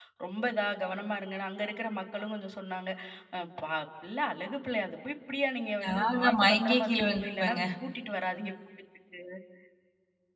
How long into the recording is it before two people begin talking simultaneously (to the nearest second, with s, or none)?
6 s